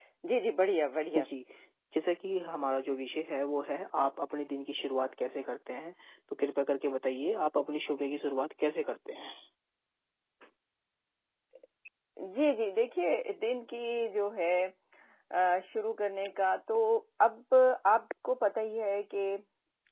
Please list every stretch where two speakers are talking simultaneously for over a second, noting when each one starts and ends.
none

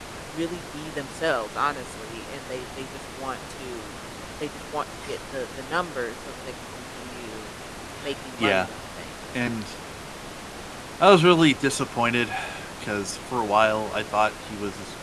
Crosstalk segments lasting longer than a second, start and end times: none

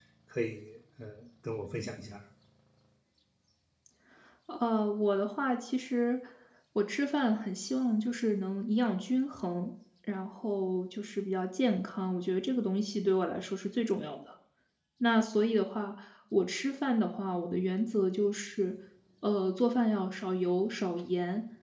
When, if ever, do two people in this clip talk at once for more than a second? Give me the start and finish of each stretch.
none

